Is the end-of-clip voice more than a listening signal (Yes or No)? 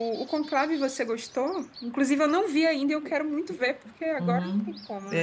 Yes